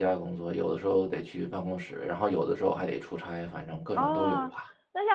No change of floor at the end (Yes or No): No